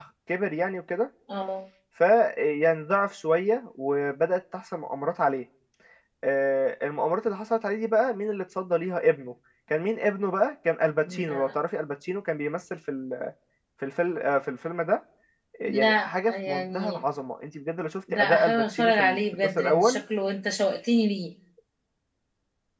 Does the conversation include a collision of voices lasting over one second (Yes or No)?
Yes